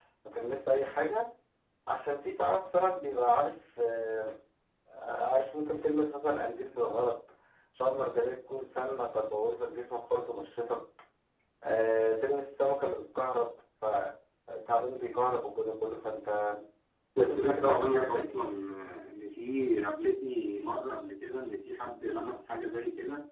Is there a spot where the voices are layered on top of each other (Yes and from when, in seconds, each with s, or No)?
Yes, from 17.2 s